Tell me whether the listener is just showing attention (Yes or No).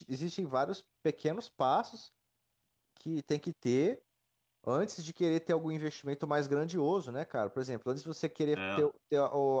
Yes